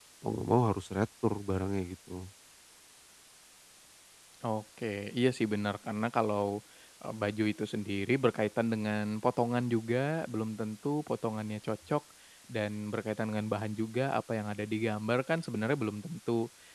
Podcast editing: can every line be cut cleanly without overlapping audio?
Yes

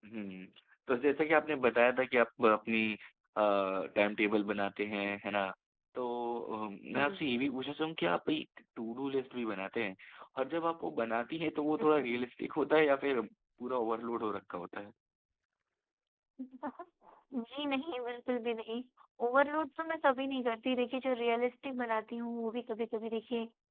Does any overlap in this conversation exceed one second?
No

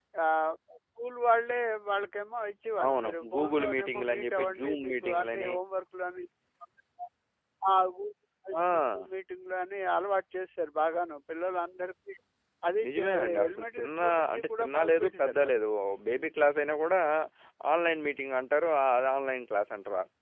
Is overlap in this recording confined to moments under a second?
No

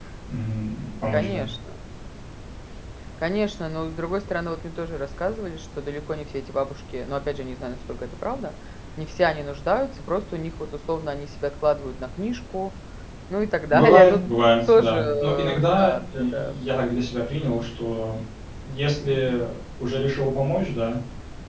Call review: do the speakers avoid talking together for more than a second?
No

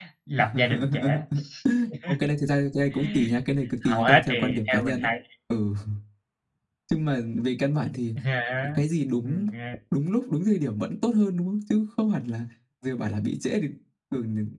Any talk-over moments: Yes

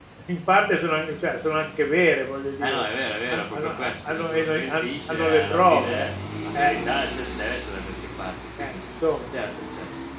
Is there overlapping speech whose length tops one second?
Yes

